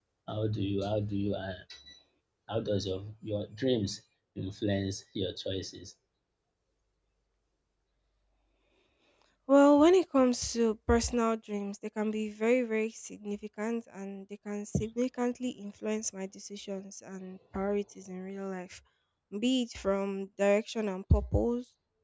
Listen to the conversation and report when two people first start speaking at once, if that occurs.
none

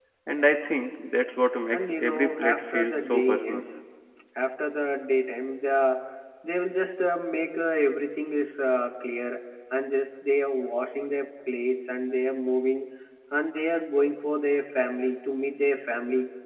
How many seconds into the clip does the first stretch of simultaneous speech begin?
1.7 s

